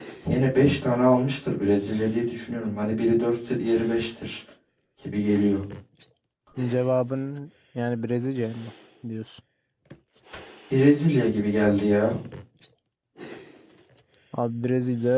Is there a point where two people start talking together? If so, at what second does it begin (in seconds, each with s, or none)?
none